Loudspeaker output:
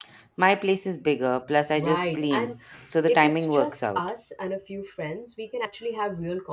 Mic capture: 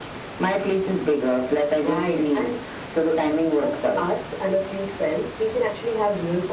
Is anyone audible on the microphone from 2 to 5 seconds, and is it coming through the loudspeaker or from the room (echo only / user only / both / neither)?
echo only